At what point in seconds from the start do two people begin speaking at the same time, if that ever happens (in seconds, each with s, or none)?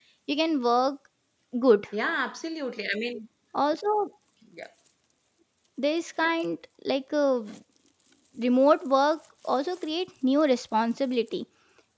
none